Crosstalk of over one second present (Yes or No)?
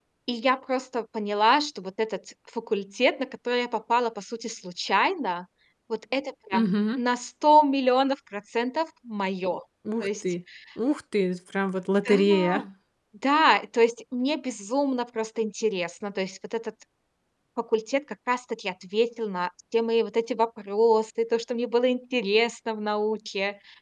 No